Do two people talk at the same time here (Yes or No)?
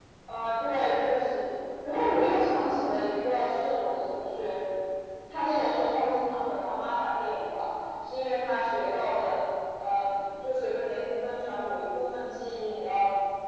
No